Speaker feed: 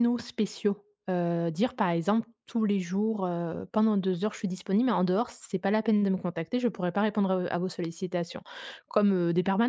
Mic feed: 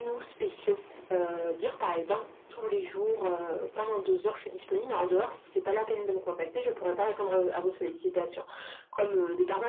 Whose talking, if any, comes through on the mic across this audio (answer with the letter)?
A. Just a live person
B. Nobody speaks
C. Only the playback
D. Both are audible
C